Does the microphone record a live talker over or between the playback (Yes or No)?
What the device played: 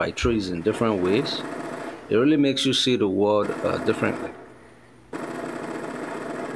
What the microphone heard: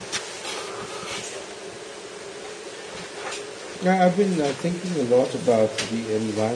Yes